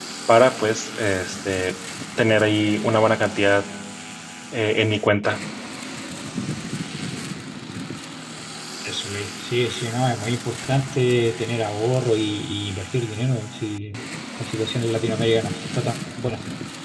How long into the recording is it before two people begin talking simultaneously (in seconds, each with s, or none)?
none